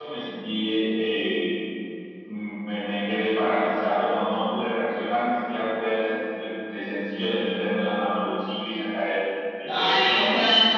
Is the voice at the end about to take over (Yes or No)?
Yes